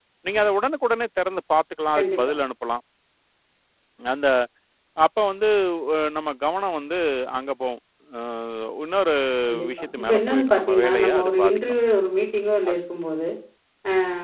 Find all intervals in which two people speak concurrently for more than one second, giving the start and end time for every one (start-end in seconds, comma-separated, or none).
9.8-11.6